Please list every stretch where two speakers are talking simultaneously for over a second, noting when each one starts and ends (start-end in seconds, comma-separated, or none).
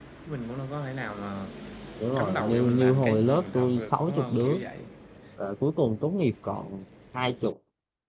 2.2-4.6